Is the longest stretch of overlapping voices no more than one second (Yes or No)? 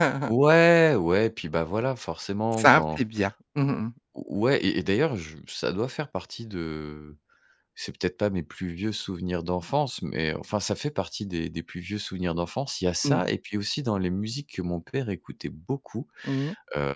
Yes